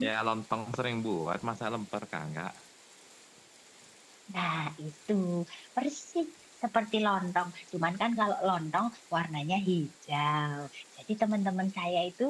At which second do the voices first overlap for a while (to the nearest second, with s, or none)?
none